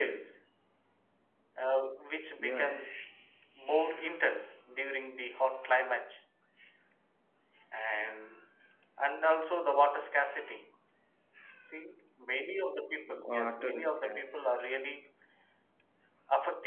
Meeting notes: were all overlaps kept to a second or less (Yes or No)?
No